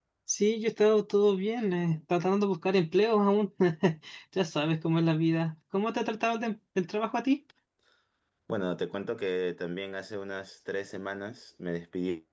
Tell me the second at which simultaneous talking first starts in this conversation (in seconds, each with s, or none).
none